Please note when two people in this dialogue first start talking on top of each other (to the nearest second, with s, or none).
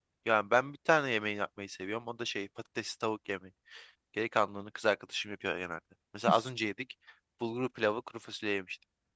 none